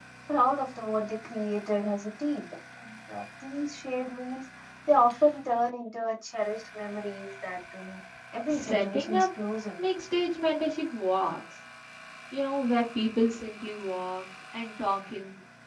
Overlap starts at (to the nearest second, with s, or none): 8 s